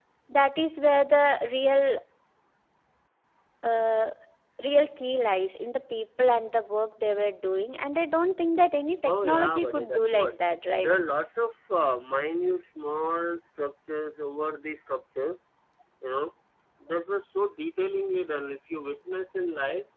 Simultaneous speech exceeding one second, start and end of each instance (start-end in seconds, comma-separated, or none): 9.0-10.3